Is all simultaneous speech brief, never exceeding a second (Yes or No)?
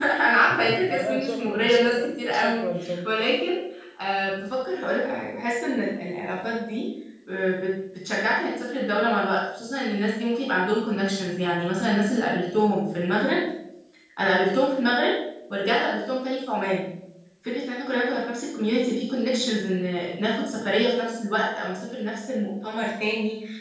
No